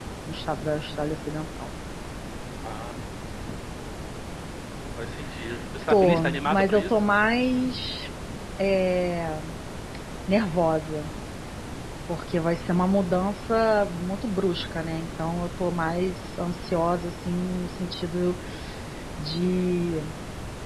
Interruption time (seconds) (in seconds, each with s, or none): 5.9 s